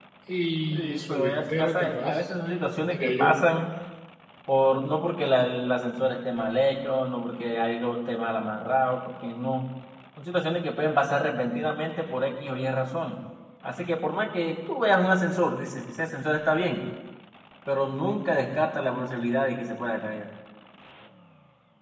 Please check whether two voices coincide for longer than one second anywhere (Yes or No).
Yes